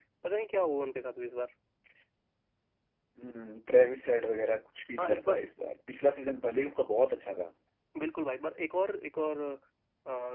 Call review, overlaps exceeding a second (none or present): none